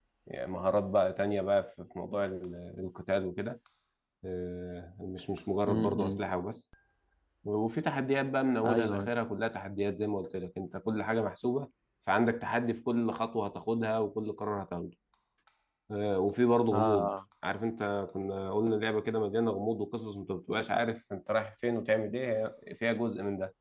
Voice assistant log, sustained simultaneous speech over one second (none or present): none